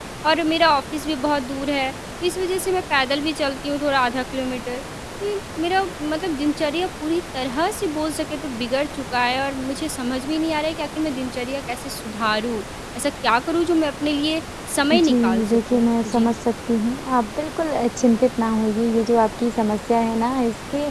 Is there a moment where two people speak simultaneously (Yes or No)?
Yes